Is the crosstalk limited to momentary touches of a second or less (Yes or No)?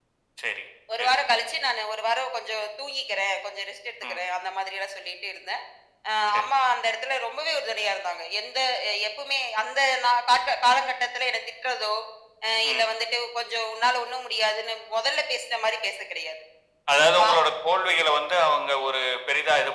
Yes